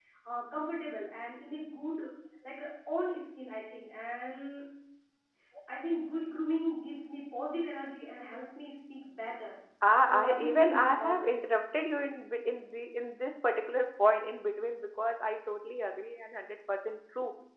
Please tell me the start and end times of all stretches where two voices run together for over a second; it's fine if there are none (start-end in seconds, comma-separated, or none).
10.0-11.4